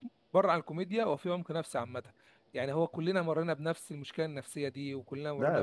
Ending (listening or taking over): taking over